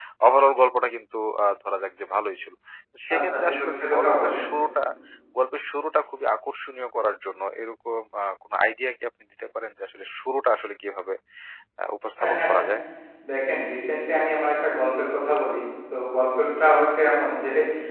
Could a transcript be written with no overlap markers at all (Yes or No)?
No